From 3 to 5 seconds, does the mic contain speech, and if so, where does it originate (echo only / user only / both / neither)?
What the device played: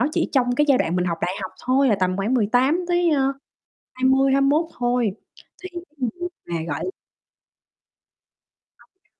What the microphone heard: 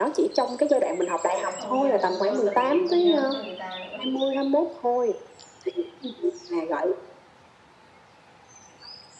both